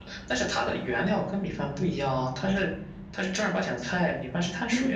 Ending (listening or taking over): taking over